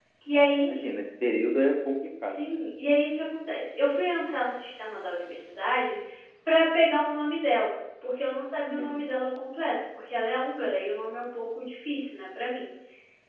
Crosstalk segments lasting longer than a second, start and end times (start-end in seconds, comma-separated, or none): none